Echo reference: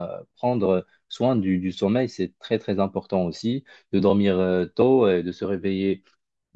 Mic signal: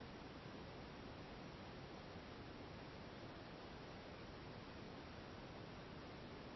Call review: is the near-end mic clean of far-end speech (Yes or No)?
Yes